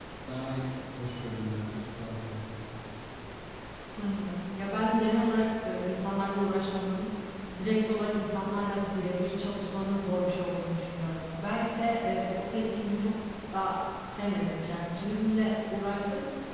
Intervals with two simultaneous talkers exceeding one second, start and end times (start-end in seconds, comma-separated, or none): none